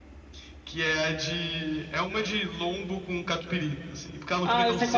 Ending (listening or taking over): taking over